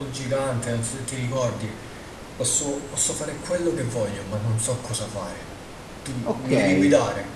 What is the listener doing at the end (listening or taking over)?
taking over